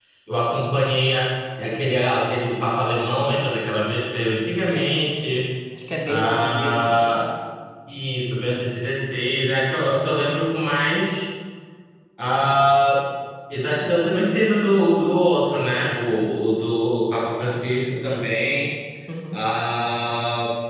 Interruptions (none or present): present